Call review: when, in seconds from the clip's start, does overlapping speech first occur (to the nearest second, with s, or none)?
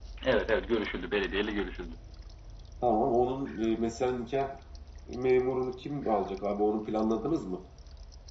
none